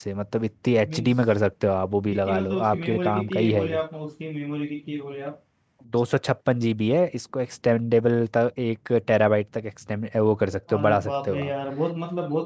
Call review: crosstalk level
present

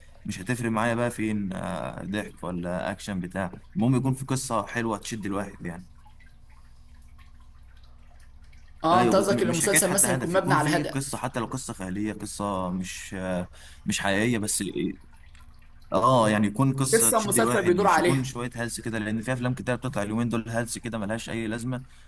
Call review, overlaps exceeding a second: present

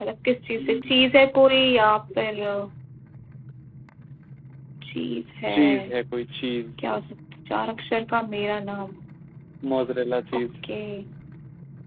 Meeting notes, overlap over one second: none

